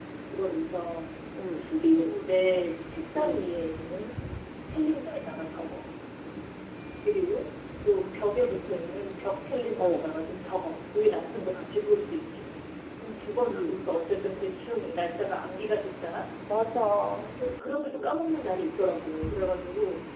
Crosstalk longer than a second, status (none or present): none